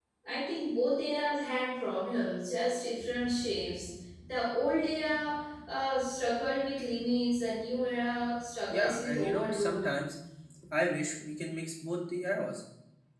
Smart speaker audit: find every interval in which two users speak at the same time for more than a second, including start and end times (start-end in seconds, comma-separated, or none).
8.7-9.9